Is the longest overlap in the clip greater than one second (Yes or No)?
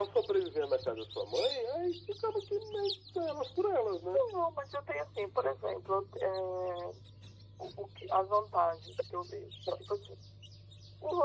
No